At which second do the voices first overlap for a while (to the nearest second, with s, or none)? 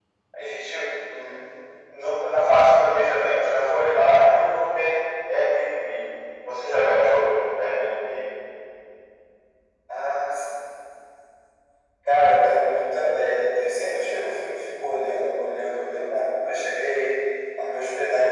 none